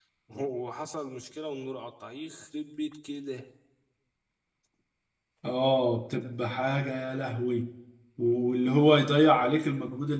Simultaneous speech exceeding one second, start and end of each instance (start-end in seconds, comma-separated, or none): none